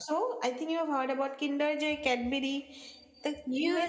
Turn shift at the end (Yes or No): Yes